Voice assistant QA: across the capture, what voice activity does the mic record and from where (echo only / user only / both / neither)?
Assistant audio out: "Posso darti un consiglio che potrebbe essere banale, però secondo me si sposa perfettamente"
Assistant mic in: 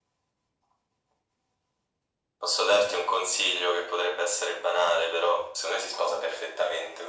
echo only